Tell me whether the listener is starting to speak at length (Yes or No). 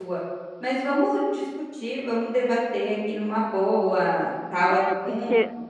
Yes